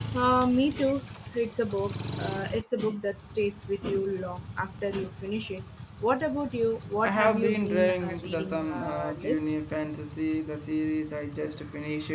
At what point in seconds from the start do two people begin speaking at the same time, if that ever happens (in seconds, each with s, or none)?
7.0 s